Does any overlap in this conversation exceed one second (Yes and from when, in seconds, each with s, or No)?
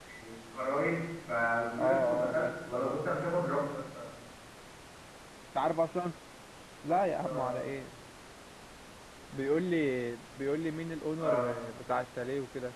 Yes, from 1.8 s